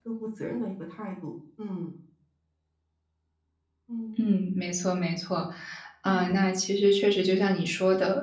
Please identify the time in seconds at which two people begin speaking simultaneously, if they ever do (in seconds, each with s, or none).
none